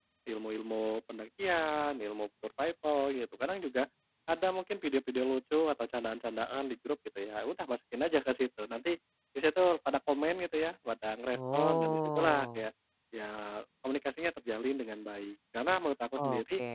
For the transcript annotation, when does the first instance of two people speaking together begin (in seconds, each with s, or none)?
11.3 s